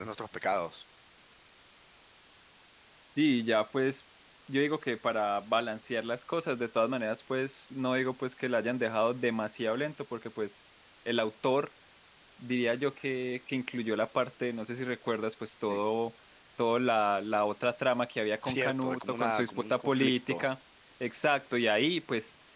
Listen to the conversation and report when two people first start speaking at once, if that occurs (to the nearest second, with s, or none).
18 s